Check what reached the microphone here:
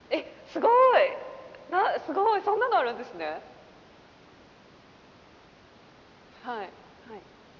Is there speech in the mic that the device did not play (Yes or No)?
No